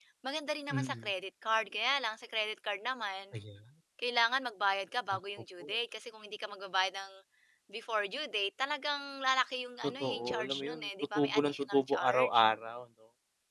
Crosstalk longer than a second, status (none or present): present